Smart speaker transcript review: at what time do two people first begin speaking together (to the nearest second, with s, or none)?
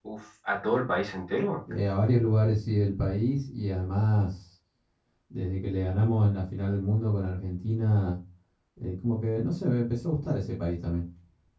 none